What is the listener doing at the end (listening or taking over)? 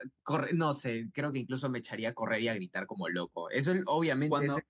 taking over